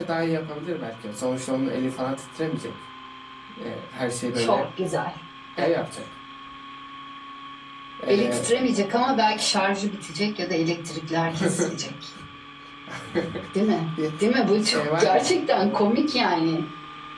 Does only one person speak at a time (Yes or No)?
No